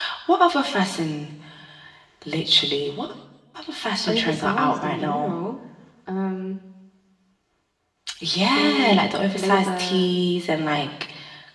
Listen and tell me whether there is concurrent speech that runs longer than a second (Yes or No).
Yes